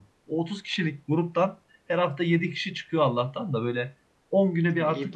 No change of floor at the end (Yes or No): Yes